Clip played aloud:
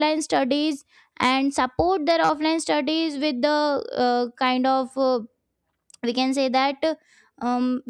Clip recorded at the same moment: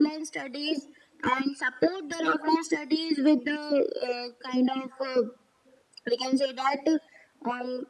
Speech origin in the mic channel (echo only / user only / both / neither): echo only